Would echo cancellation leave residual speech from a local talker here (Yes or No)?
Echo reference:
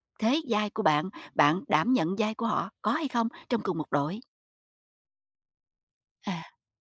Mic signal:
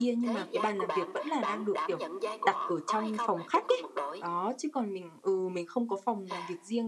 Yes